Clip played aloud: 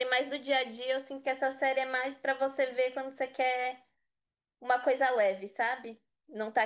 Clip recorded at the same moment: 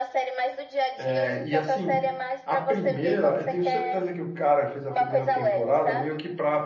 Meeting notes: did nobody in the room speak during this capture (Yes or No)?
No